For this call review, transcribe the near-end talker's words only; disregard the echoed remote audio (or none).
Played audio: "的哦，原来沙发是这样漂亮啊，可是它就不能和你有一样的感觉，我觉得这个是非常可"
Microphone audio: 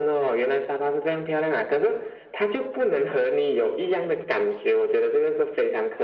none